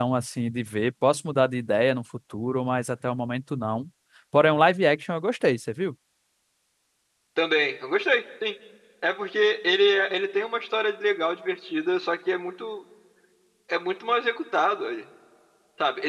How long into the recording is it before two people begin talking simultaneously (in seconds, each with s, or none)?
none